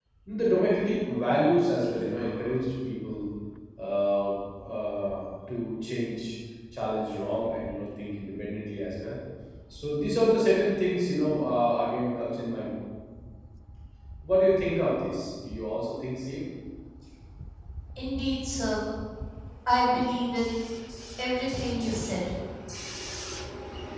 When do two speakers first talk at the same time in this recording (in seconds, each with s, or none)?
none